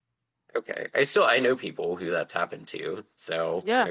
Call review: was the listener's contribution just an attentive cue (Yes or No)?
No